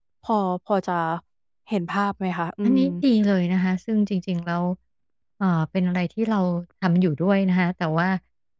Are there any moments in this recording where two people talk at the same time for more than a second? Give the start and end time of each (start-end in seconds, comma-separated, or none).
none